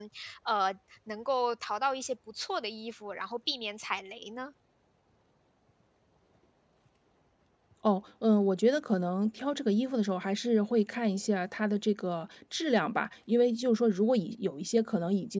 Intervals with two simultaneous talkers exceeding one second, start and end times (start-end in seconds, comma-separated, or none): none